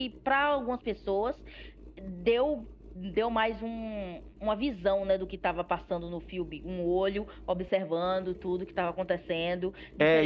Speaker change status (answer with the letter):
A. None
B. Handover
B